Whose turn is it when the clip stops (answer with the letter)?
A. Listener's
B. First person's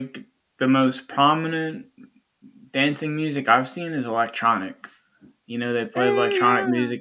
B